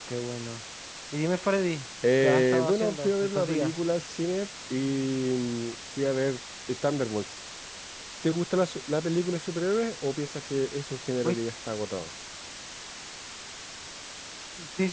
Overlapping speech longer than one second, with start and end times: 2.2-3.7

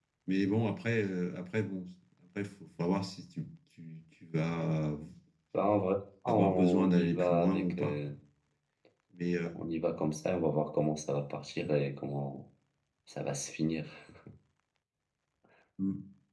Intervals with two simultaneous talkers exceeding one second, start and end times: 6.3-8.0

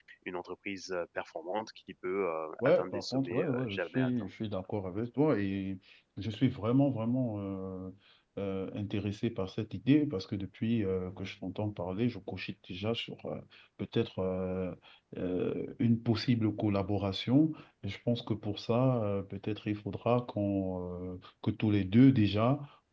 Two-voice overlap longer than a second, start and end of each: 2.6-4.1

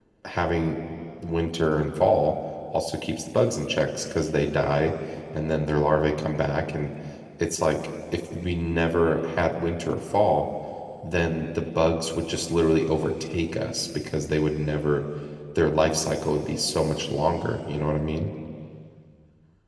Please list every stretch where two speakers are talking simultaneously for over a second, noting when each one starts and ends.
none

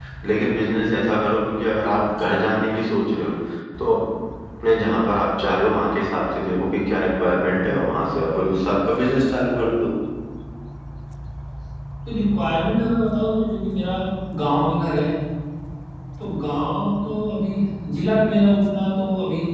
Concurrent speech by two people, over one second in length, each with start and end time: none

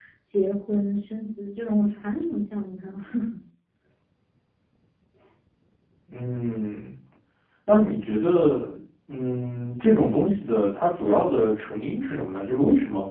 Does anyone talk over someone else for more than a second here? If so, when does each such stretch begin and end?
none

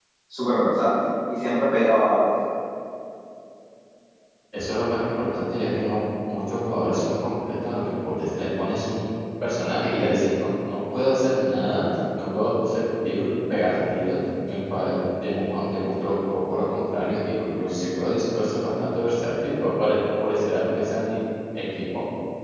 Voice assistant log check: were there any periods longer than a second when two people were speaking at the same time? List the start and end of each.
none

